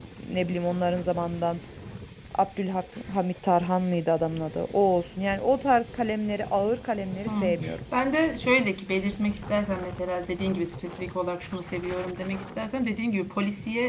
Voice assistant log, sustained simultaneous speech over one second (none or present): none